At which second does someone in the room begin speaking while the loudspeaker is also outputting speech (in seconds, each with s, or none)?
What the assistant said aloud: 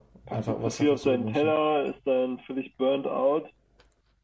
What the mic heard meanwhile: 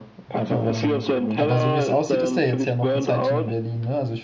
0.5 s